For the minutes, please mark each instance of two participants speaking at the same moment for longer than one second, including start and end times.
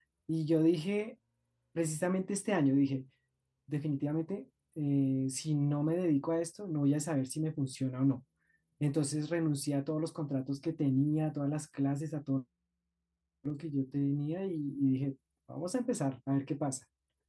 none

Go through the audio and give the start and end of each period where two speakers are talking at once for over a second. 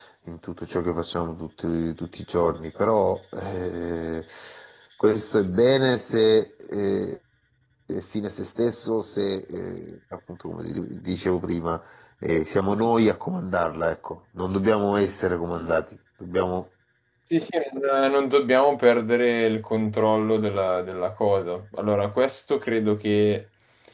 none

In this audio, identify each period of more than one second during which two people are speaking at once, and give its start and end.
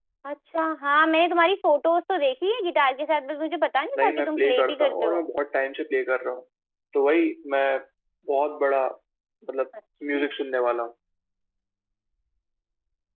4.0-5.2

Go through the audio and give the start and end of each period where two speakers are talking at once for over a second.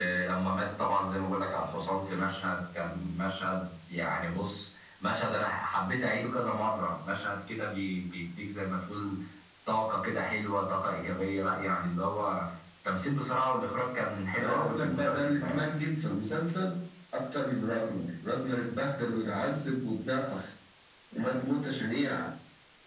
14.3-15.8

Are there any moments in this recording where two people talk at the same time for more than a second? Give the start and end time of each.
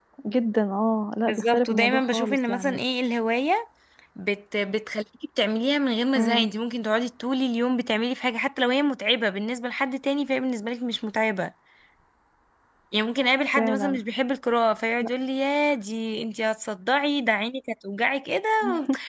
1.2-2.8

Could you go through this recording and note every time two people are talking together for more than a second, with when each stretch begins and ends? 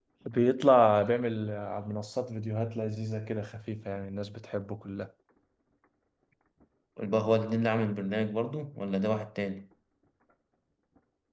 none

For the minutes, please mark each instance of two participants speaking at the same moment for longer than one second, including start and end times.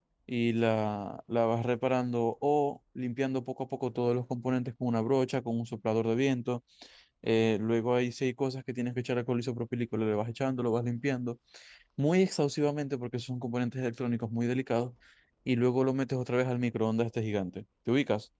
none

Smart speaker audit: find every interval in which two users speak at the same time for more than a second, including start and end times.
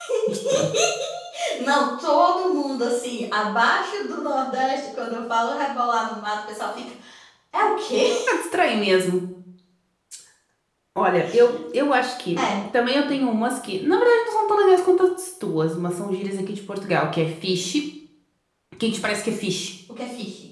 none

